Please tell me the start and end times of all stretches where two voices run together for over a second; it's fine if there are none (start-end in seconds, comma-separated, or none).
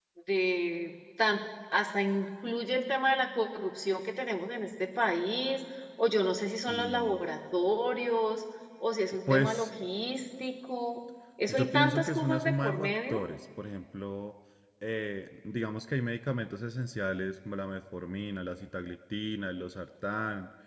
11.5-13.2